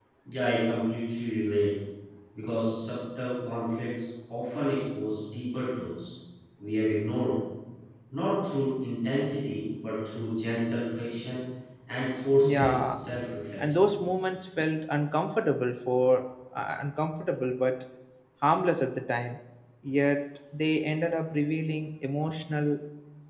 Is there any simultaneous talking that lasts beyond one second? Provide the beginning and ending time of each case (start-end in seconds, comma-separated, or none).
none